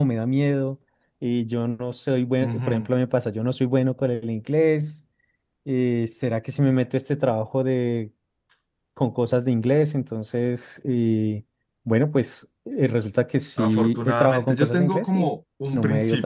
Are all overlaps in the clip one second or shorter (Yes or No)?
No